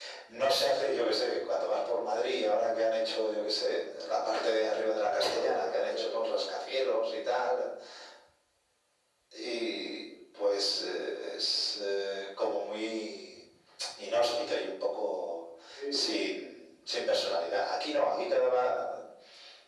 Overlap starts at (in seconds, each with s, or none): 5.0 s